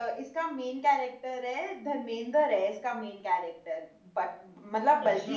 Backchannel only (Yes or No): Yes